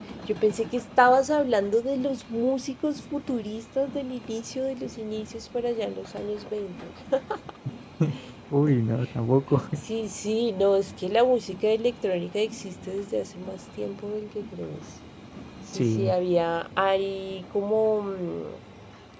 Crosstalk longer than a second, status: none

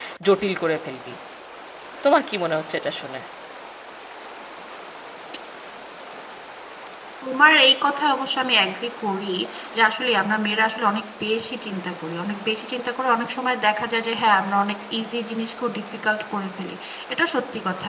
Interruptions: none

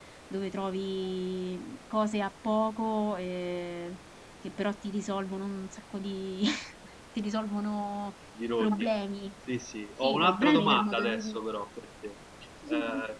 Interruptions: present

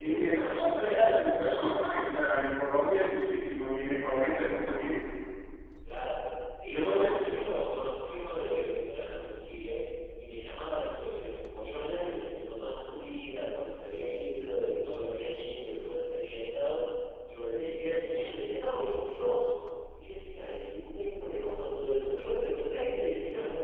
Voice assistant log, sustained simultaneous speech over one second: present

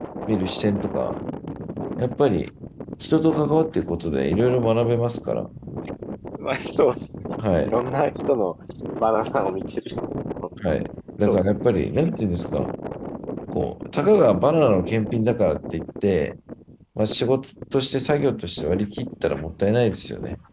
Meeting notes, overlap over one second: none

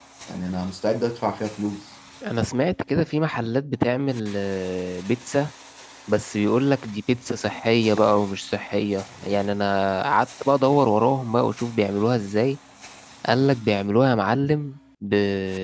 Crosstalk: none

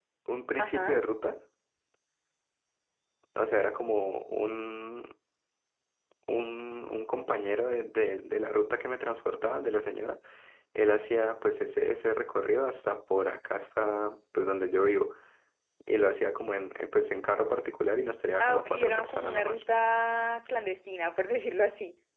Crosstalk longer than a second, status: present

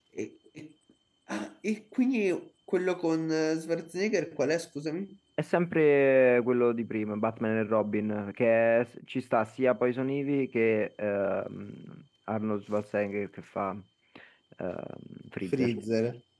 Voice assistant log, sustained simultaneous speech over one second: none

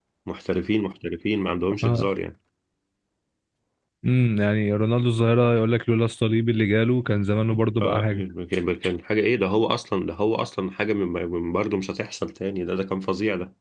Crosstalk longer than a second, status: none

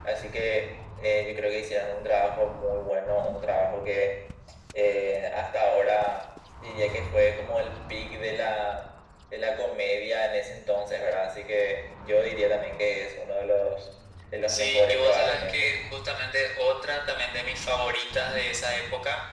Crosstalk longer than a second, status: present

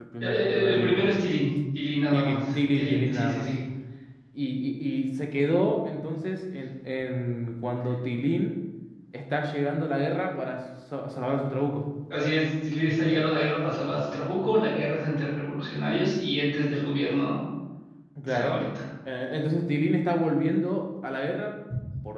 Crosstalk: present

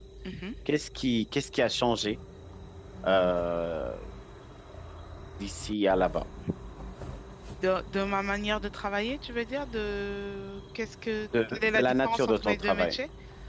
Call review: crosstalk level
present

